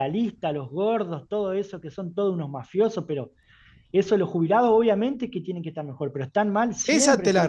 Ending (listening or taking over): taking over